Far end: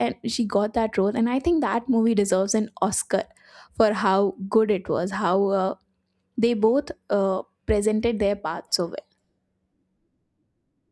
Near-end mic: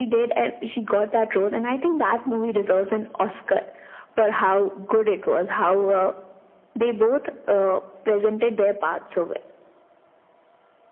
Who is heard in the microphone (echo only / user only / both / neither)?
echo only